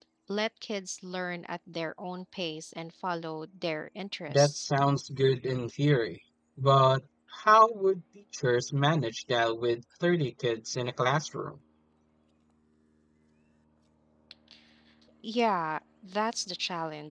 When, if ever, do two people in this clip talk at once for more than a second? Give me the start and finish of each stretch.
none

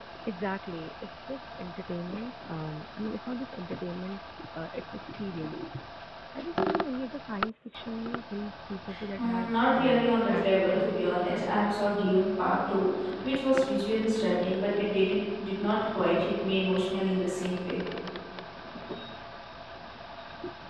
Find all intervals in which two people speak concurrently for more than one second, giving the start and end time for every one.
9.2-11.4

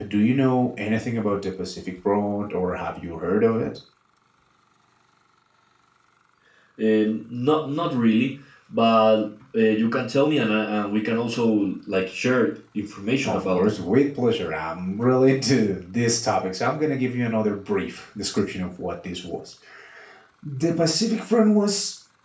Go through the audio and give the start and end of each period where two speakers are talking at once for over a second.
none

